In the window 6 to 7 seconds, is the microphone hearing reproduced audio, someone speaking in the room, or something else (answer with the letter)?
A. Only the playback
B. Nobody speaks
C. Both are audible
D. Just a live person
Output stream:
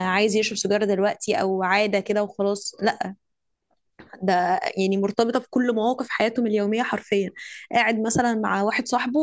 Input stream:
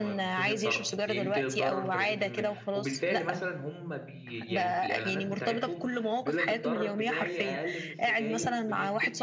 C